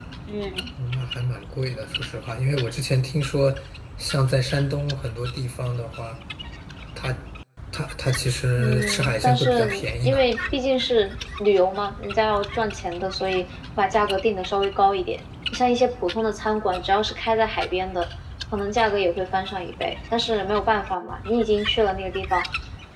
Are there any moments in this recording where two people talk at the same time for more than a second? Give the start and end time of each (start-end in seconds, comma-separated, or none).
8.6-10.2